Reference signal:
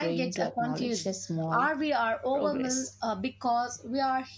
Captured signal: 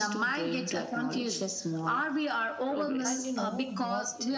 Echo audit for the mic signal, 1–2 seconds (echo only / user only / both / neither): echo only